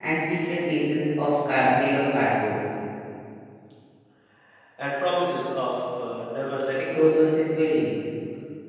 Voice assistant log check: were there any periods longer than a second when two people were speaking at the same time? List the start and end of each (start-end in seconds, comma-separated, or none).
none